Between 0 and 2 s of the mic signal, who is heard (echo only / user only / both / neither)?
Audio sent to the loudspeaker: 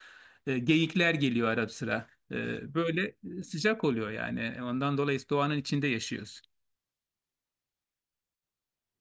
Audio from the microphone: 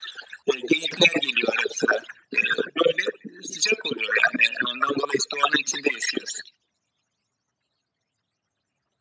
echo only